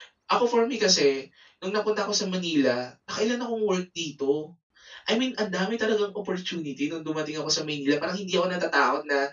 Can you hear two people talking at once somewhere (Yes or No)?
No